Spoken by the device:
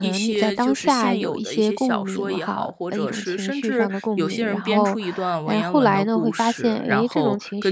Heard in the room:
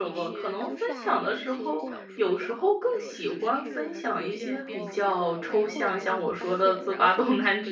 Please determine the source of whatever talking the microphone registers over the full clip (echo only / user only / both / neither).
both